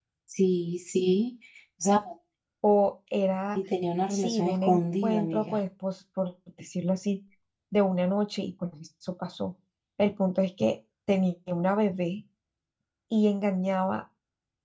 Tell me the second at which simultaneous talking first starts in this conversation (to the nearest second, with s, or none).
4 s